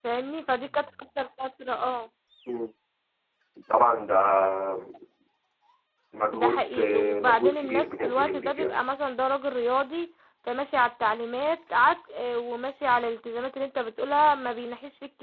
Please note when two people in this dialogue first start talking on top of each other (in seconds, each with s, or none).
6.3 s